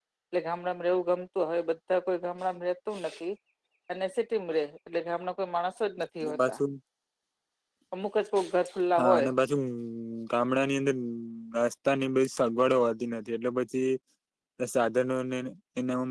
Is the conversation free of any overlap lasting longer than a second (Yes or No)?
Yes